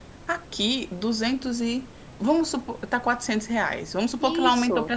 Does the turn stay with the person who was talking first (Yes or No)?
Yes